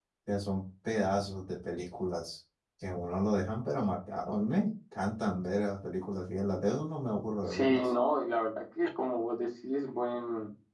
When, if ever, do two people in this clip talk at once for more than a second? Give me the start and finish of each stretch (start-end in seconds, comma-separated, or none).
none